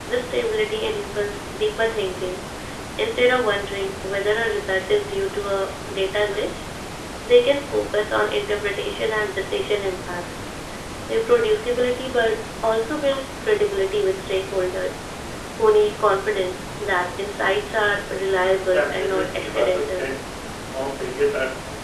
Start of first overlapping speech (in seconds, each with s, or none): 18.7 s